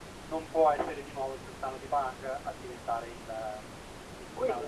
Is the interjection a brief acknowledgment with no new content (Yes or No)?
No